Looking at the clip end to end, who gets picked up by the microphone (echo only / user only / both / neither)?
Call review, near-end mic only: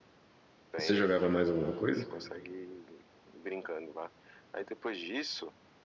both